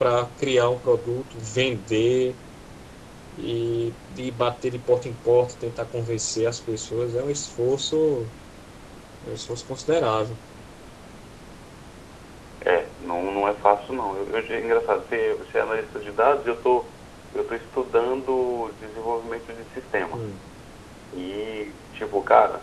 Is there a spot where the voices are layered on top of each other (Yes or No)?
No